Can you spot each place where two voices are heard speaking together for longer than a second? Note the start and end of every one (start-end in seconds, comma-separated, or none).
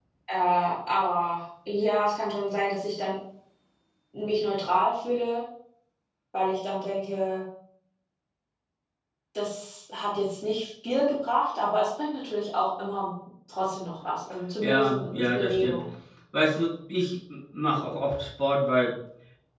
14.6-15.8